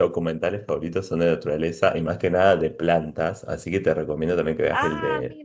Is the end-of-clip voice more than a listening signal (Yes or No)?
No